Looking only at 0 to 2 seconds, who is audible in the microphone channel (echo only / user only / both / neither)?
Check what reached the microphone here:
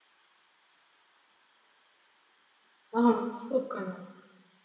neither